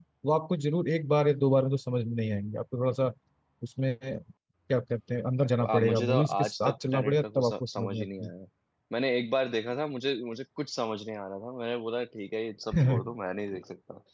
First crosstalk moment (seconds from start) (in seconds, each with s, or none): 5.7 s